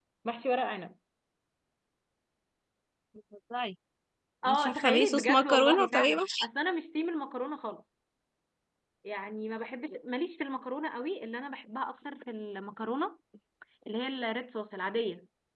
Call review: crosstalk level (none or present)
present